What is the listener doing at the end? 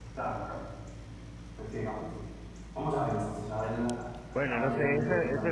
taking over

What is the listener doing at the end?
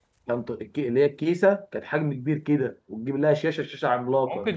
taking over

